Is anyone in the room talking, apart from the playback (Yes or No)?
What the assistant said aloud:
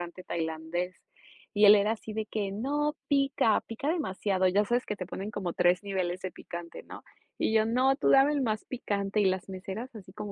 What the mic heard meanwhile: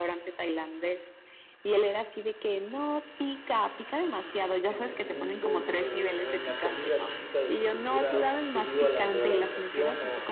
Yes